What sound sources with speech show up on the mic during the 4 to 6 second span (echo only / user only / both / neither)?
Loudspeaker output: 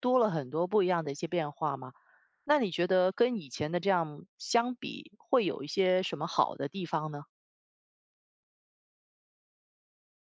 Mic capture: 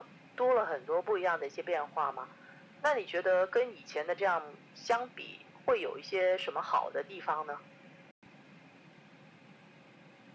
echo only